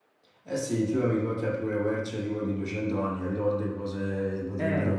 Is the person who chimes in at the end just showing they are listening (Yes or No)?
No